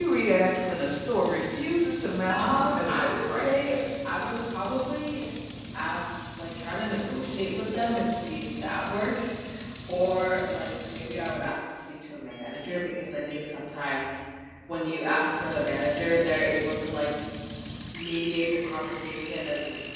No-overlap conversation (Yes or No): No